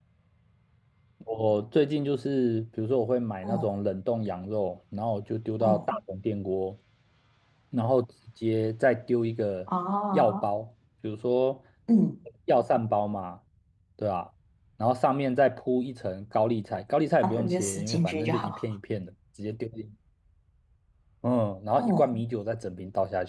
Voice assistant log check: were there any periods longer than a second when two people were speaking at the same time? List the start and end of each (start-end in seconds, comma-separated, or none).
17.2-18.6